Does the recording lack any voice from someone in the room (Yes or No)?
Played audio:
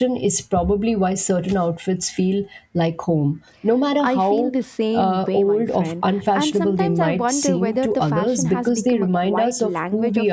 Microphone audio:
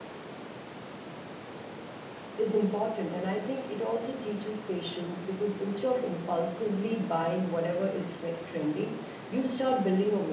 No